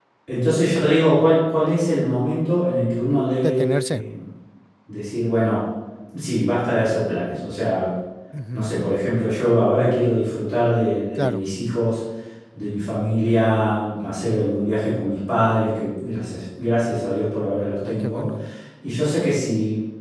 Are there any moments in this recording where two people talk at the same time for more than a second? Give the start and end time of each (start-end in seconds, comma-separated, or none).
none